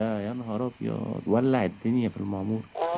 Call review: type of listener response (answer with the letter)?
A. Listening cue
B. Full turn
B